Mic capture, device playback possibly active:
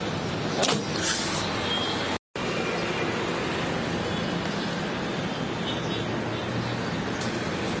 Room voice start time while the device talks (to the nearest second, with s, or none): none